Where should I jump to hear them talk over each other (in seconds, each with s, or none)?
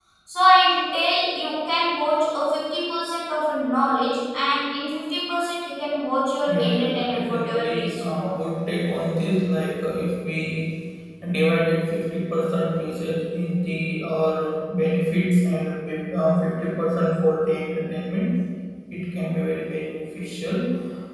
6.5 s